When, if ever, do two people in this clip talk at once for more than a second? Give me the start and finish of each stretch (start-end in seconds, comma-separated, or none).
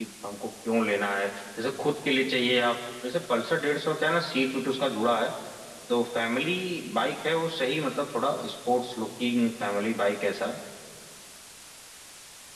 none